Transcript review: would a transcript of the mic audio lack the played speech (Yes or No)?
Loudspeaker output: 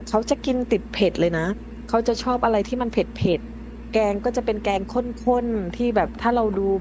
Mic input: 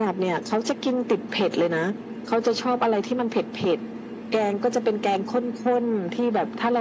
No